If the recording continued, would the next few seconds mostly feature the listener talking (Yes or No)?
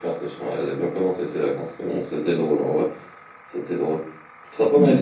No